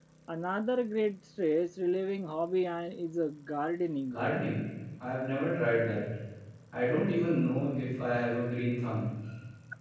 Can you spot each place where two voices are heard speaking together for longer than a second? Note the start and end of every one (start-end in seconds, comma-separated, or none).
none